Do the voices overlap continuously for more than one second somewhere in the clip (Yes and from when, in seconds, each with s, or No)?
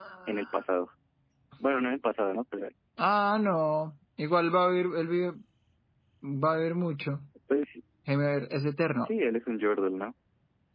No